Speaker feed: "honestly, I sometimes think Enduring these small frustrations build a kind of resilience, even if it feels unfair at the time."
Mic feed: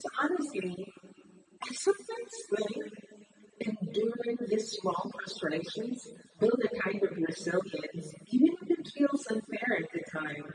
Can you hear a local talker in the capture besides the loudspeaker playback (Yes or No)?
No